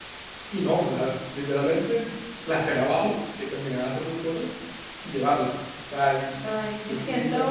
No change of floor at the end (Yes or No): No